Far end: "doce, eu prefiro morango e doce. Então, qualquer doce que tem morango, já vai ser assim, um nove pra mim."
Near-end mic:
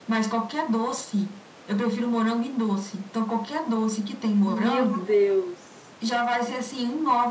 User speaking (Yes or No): Yes